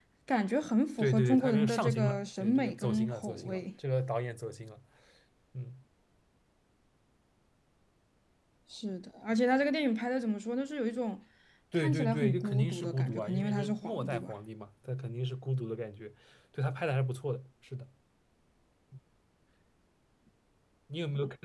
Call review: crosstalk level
present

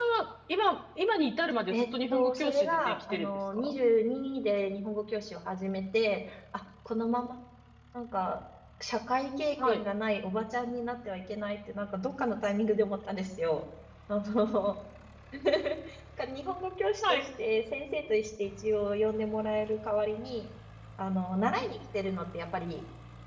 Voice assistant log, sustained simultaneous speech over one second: present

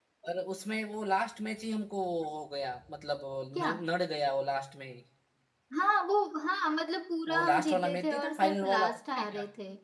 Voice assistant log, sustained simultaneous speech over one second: present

